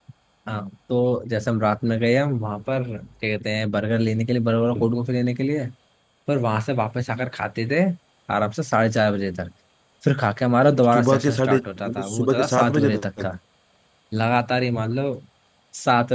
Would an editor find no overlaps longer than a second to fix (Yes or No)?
No